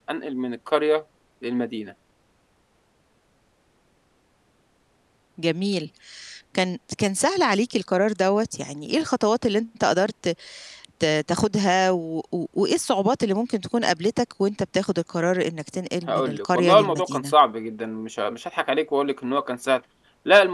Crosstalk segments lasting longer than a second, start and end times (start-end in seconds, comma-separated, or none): 16.1-17.3